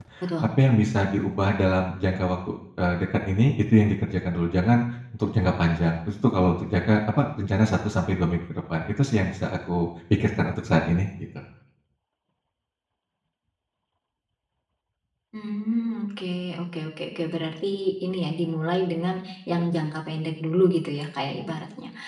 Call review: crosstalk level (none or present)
none